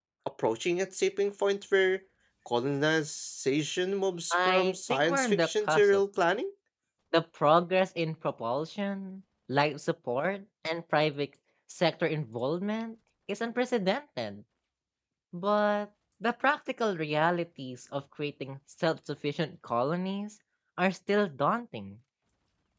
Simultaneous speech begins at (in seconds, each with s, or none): 4.3 s